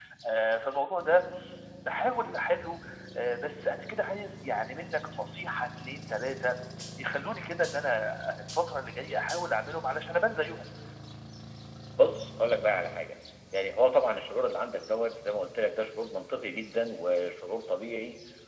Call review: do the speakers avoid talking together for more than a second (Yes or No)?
Yes